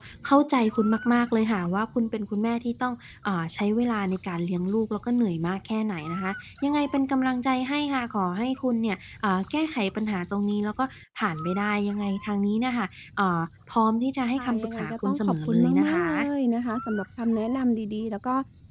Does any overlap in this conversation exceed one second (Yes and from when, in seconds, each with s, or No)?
Yes, from 14.4 s